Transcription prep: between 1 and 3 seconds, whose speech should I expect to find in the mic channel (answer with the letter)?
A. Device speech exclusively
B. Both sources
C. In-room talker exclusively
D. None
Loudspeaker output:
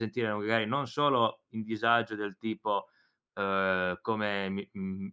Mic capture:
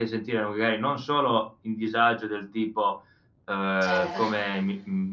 A